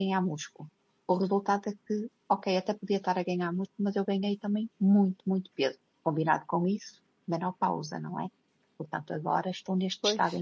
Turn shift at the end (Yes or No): No